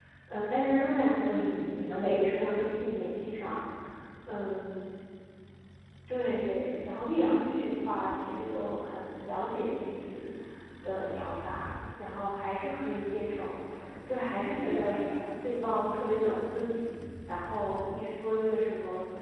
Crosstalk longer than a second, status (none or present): present